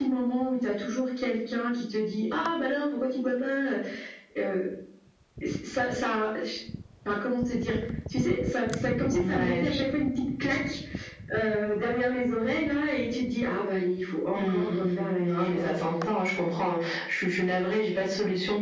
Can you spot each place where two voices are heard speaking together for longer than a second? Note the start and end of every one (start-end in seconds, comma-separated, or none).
14.3-15.8